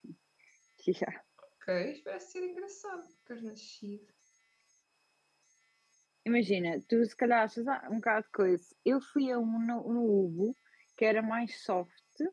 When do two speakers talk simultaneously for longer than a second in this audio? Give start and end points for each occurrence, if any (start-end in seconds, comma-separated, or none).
none